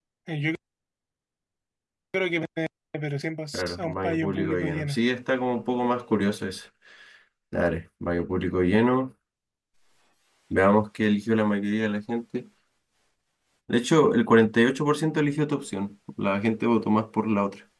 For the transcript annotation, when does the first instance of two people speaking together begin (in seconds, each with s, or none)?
3.5 s